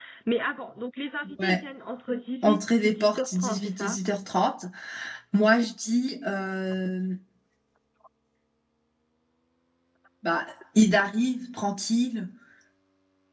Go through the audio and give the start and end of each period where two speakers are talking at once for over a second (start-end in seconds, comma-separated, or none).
2.4-4.0